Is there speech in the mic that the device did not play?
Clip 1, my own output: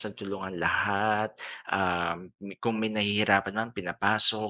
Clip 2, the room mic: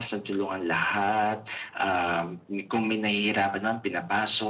No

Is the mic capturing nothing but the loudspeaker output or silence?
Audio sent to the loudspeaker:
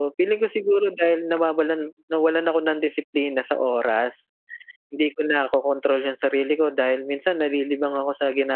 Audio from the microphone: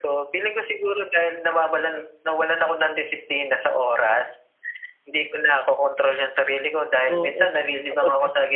No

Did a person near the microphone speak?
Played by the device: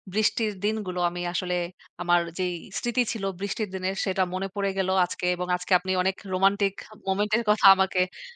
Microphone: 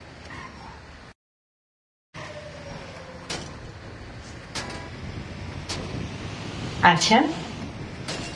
Yes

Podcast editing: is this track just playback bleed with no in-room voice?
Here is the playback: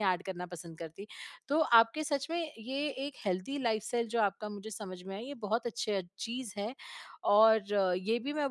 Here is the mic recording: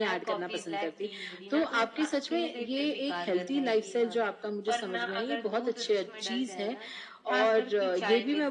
No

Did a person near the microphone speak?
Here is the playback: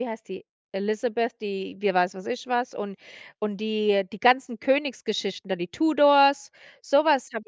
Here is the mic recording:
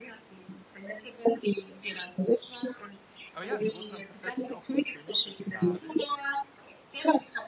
Yes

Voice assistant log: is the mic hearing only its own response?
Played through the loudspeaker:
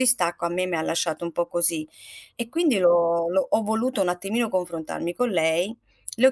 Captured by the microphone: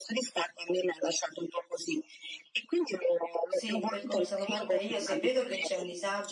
No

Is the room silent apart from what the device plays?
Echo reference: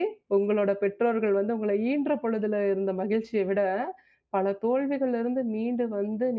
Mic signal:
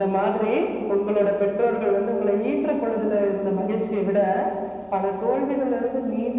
Yes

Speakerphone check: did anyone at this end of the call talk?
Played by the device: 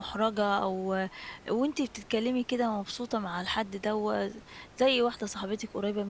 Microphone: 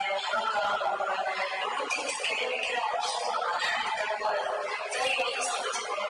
No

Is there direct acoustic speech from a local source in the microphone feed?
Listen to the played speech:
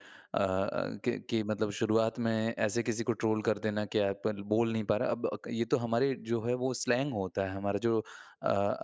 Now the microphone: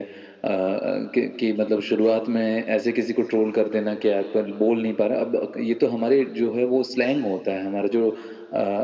No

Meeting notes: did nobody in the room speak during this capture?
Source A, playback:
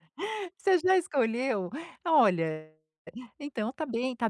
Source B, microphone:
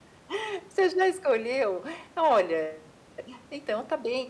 Yes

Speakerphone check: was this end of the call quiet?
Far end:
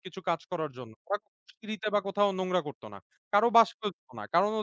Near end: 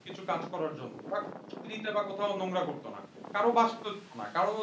Yes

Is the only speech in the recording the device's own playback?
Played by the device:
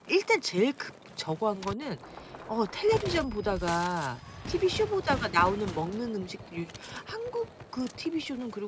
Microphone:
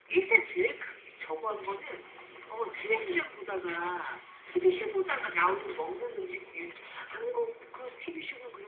Yes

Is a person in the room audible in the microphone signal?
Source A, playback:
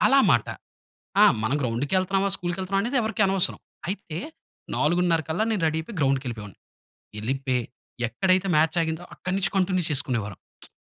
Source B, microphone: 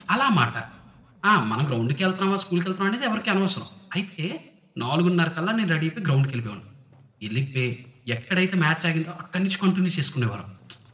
No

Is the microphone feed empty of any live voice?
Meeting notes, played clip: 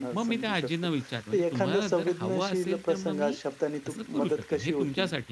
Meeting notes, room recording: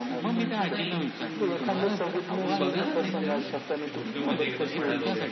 No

